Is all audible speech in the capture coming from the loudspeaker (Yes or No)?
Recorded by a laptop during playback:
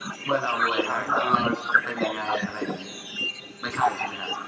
No